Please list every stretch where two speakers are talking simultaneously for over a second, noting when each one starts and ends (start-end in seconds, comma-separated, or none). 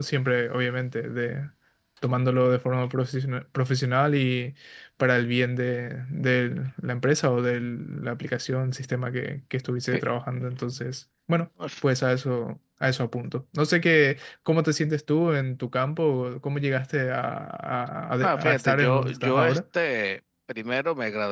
18.2-19.6